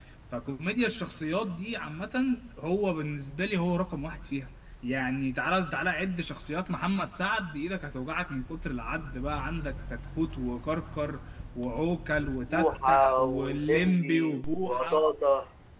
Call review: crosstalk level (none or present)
present